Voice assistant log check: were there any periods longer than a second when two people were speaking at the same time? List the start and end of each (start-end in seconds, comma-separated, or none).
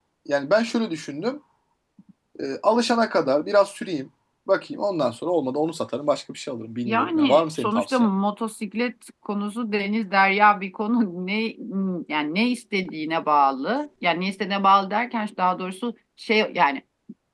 6.8-8.1